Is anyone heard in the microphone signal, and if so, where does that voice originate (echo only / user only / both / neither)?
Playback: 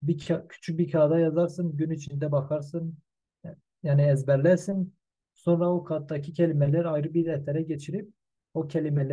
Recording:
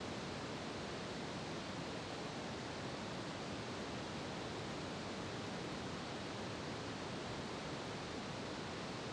neither